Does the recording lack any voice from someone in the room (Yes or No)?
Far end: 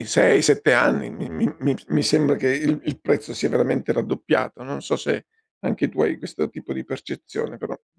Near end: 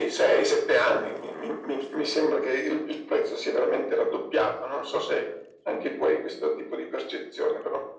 Yes